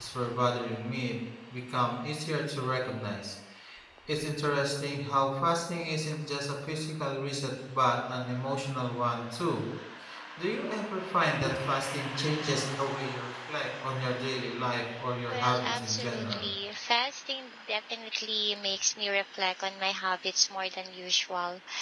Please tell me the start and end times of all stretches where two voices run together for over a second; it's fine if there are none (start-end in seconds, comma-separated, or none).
15.3-16.5